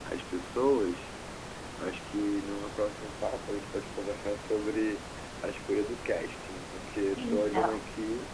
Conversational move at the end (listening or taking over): listening